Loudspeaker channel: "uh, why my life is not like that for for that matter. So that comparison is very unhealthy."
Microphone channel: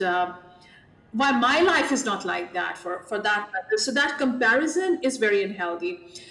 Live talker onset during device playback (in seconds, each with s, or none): none